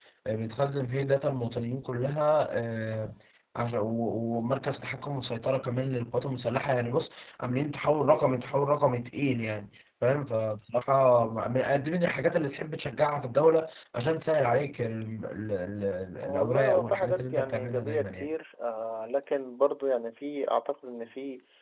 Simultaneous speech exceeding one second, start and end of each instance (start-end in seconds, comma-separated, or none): 16.2-18.3